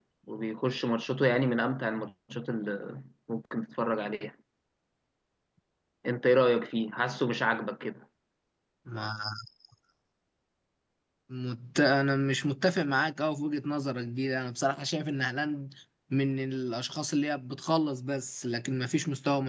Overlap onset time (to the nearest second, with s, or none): none